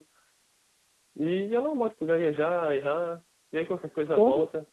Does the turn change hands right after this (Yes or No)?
No